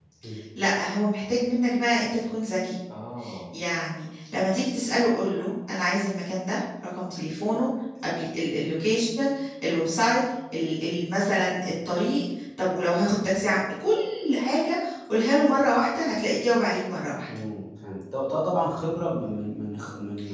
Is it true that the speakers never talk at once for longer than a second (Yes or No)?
Yes